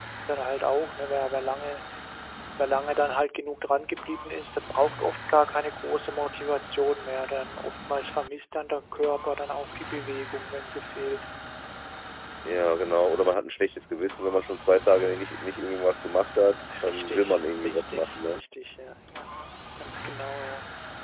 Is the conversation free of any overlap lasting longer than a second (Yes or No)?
No